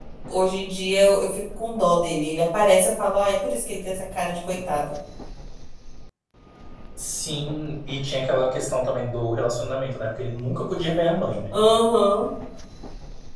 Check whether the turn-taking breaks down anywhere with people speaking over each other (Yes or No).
No